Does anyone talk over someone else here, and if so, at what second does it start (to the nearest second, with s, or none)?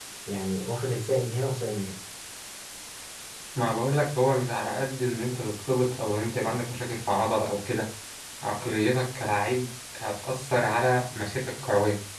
none